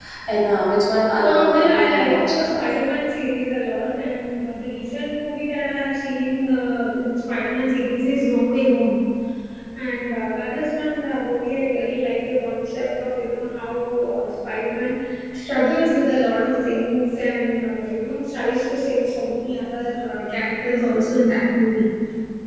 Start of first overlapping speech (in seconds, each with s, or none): 1.2 s